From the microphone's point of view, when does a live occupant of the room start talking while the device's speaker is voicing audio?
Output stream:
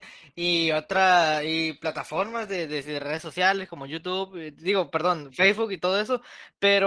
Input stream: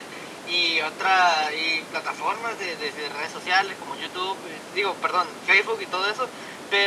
none

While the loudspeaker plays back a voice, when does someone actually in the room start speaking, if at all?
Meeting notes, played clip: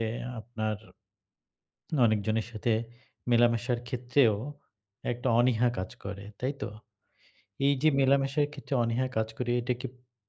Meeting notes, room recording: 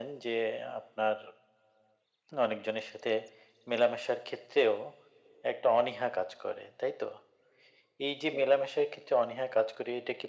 none

